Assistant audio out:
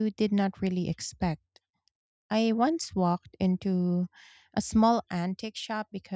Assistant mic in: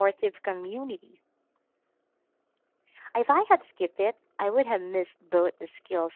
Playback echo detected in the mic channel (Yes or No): No